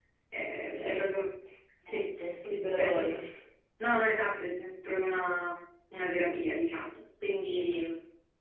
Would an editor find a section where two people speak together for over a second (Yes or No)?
No